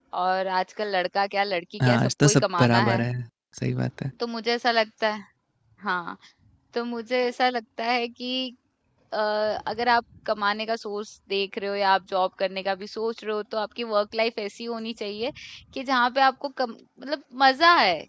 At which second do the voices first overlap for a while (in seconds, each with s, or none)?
1.8 s